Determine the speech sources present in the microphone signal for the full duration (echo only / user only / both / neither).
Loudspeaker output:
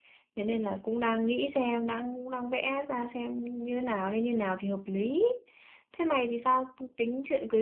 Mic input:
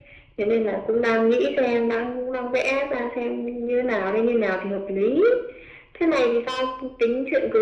echo only